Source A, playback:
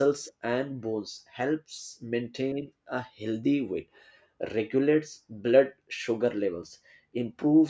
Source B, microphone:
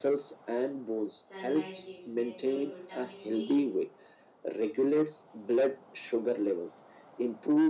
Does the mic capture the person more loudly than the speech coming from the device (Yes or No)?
No